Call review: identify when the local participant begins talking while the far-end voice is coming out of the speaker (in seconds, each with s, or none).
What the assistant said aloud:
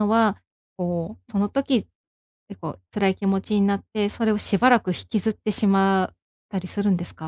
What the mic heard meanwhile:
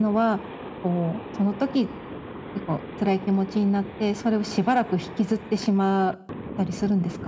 none